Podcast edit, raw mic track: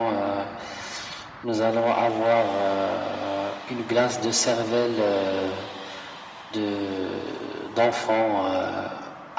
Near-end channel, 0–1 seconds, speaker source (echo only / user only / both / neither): echo only